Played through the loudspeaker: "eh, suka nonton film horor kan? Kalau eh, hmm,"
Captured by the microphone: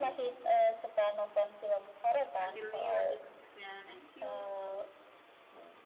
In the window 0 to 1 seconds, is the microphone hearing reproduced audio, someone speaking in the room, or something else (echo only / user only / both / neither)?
echo only